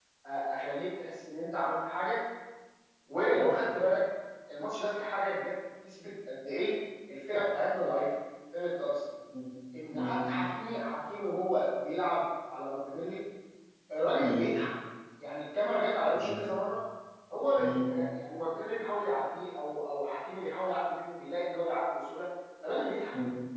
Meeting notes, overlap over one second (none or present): none